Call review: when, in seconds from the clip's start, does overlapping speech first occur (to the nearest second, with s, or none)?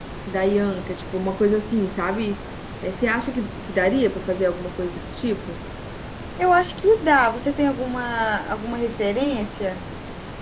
none